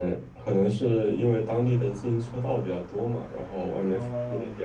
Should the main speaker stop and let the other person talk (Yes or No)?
Yes